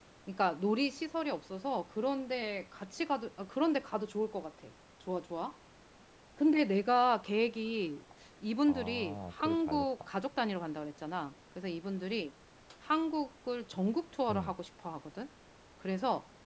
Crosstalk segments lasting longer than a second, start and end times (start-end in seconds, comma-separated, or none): 8.7-10.1